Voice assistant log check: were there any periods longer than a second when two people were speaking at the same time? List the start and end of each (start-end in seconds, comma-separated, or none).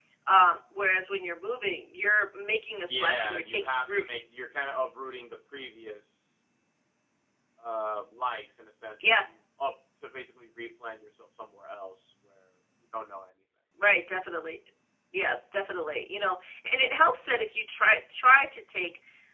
2.9-4.2